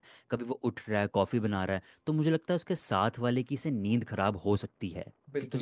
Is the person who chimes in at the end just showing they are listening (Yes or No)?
No